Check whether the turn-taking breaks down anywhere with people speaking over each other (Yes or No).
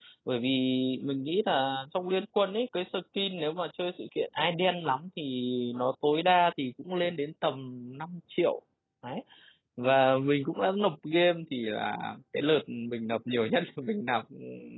No